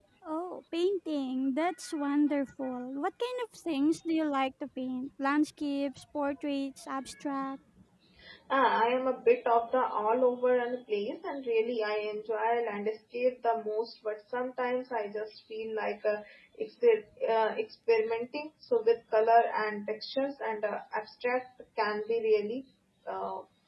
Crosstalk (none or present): none